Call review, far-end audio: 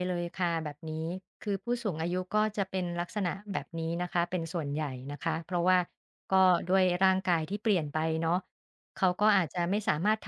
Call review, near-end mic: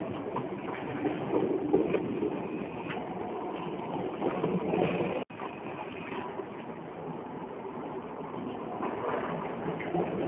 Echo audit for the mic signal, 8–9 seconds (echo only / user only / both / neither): neither